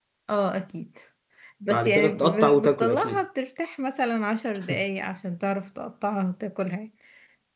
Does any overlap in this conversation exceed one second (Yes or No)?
Yes